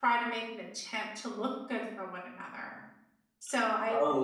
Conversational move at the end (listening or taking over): taking over